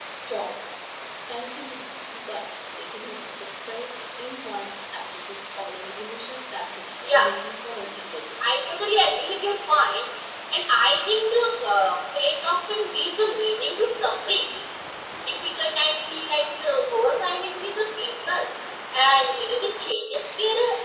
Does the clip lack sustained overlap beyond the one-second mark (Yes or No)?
Yes